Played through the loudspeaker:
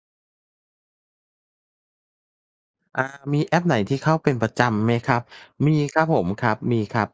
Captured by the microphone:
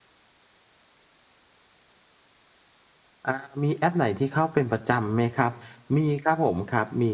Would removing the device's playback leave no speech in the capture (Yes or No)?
Yes